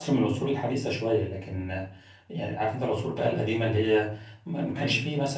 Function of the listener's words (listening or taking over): listening